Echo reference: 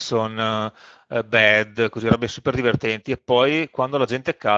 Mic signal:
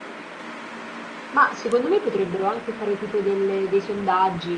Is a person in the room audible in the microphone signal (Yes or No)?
Yes